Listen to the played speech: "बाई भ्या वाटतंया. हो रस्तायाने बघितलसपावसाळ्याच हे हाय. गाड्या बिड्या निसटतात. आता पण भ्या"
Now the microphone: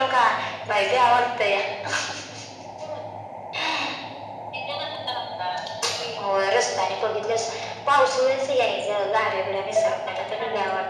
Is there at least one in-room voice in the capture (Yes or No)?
No